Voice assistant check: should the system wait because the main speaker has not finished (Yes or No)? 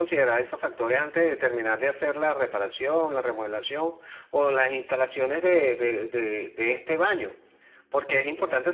Yes